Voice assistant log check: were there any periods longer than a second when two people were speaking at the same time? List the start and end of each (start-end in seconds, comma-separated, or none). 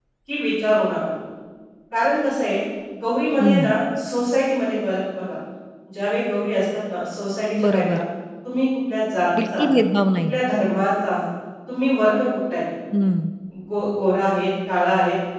none